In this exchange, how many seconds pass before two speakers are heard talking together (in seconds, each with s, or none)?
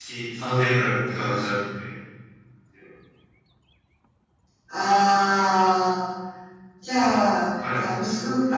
none